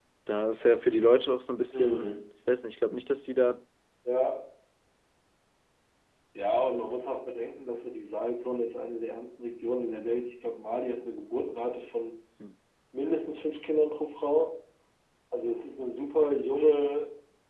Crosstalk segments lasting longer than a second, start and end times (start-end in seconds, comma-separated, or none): none